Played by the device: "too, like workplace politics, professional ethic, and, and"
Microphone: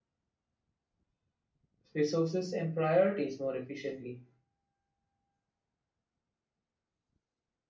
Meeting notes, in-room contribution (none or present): present